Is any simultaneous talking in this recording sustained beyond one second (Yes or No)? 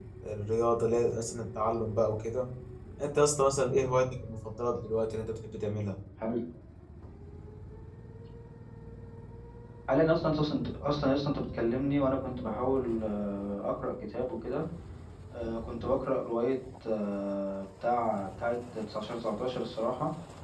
No